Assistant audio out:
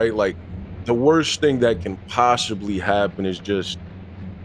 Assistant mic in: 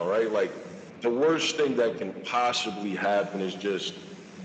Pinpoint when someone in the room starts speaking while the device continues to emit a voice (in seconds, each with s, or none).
none